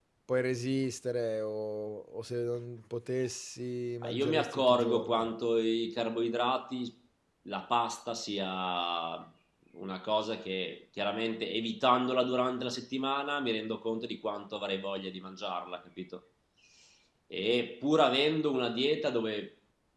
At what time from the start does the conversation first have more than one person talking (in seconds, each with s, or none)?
4.0 s